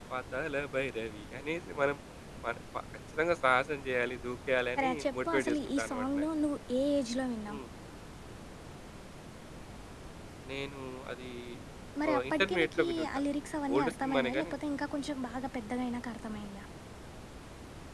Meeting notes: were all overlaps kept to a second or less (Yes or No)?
No